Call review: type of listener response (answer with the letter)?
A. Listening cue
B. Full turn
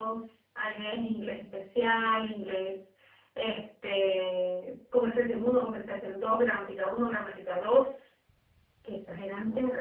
A